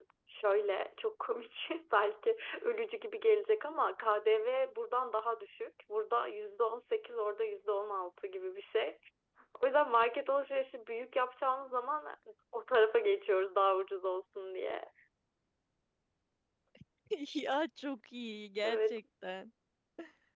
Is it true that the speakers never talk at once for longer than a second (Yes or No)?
Yes